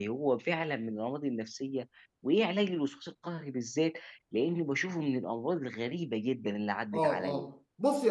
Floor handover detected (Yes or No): Yes